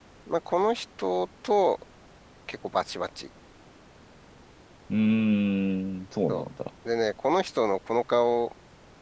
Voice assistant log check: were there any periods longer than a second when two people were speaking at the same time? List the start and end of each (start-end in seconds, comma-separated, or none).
none